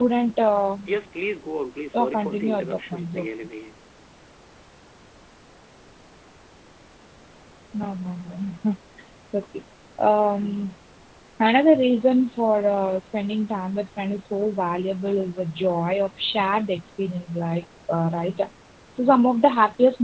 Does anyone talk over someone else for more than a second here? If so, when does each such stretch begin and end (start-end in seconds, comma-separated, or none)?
1.9-3.3